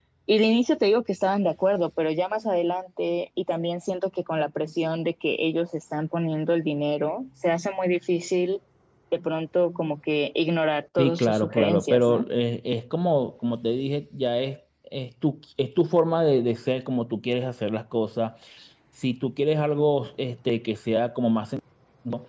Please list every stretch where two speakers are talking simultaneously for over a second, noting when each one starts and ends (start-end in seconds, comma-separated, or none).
11.0-12.3